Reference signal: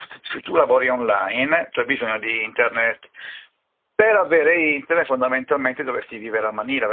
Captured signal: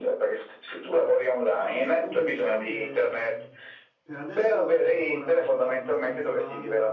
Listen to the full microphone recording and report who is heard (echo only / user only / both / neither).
both